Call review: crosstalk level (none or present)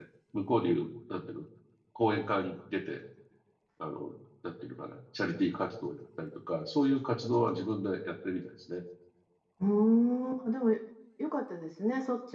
none